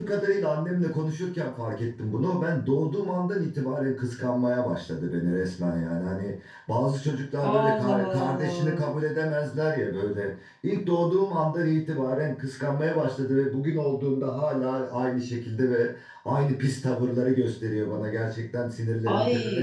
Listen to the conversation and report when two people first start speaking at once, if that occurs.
7.4 s

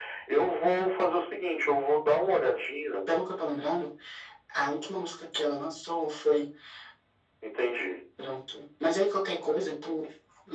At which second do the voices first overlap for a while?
none

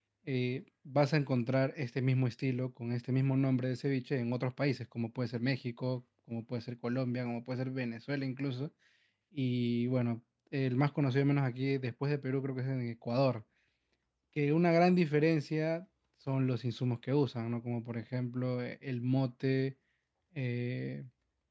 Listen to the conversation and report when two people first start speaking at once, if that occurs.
none

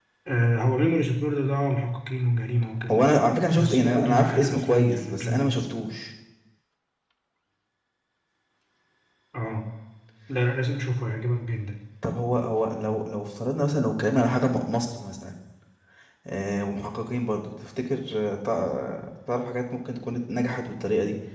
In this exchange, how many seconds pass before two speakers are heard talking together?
3.5 s

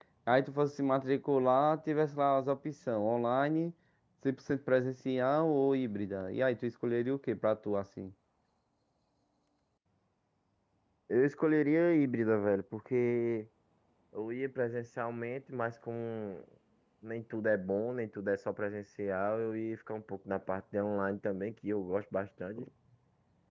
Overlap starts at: none

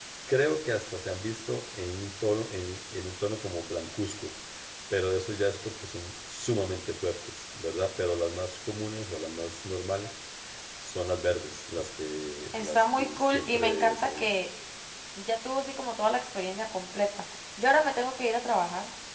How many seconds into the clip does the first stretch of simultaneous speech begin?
12.5 s

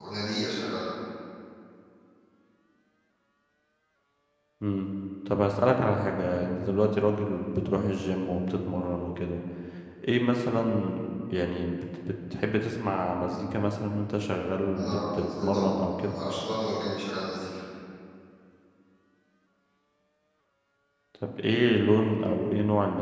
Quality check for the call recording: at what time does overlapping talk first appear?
14.7 s

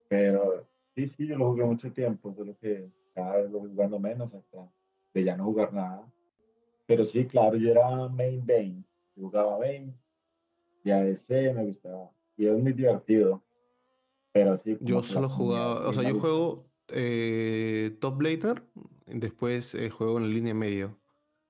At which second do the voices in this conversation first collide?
14.9 s

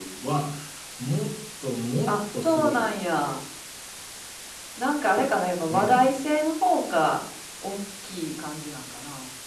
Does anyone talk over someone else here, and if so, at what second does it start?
2.1 s

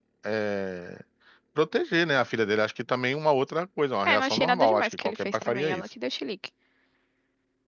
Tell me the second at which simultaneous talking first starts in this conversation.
4.1 s

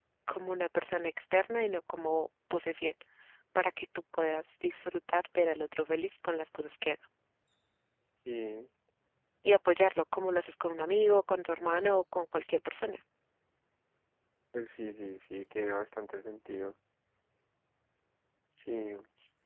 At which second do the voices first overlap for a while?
none

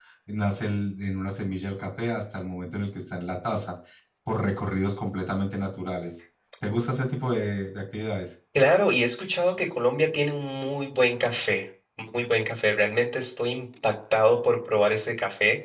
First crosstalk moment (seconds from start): none

